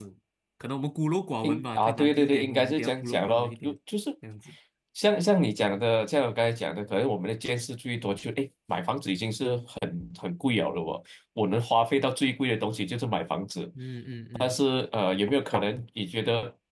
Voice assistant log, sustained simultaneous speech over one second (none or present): present